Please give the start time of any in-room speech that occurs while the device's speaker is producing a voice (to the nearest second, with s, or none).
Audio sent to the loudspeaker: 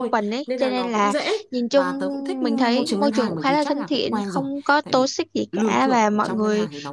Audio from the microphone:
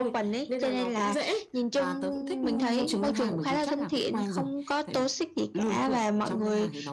none